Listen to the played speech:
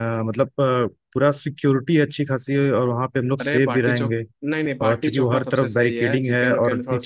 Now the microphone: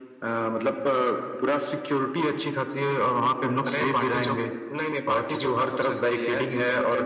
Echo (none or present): present